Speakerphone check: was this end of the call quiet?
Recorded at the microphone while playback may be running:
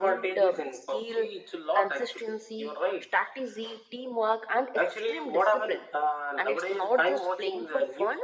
Yes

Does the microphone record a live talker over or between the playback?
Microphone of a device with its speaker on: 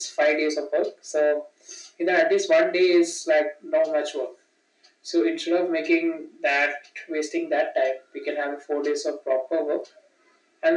No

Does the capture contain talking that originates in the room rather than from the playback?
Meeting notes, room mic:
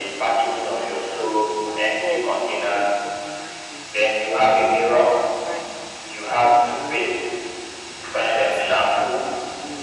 Yes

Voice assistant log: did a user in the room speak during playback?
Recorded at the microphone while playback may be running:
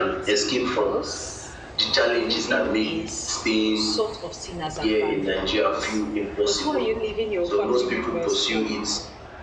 Yes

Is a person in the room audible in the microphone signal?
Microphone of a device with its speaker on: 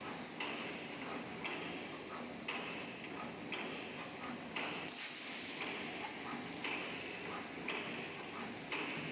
No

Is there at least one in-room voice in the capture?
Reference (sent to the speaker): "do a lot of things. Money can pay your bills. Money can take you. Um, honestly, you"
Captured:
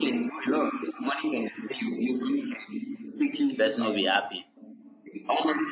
Yes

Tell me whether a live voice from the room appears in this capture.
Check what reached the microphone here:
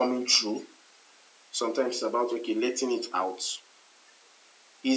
No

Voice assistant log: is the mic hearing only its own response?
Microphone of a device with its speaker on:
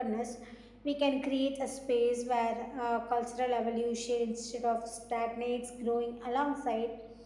Yes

